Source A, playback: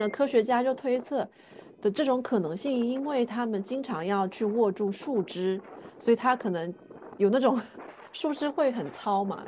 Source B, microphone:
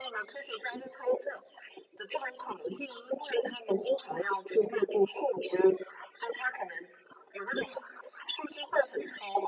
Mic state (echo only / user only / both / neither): echo only